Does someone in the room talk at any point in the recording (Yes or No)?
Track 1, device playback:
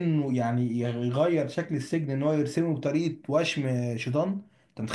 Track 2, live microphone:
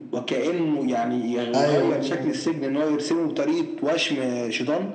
Yes